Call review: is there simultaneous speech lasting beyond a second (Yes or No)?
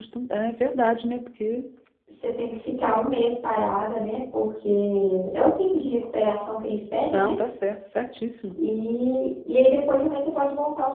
No